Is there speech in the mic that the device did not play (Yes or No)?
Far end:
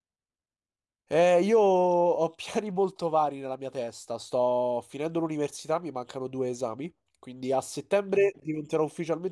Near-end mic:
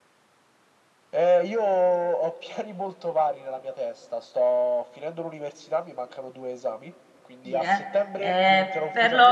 Yes